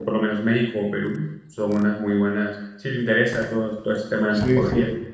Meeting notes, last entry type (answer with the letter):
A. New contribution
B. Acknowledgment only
B